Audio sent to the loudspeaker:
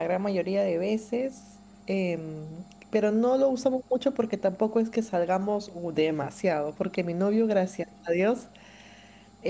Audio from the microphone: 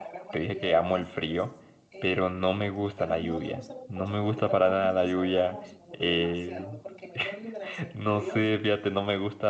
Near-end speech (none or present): present